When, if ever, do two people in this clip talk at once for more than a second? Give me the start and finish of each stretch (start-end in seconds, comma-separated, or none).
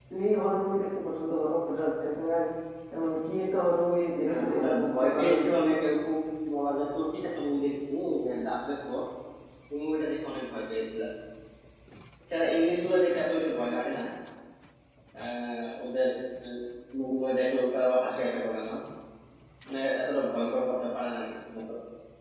4.3-5.6